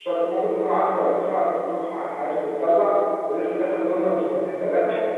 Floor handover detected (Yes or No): Yes